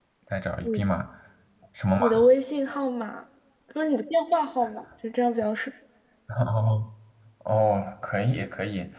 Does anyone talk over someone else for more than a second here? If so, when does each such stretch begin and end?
none

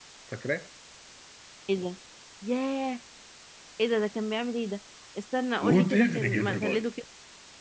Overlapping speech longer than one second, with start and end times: 5.6-6.8

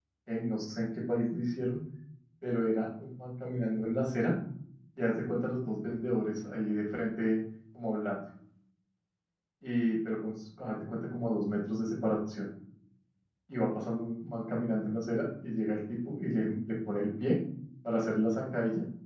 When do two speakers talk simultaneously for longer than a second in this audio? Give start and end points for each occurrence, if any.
none

